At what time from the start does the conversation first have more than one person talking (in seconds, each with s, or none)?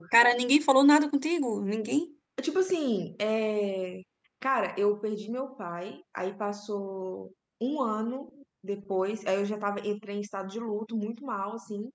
none